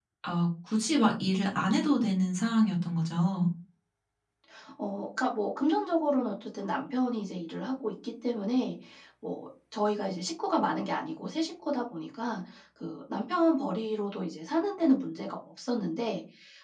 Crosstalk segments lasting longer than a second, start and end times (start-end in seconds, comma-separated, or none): none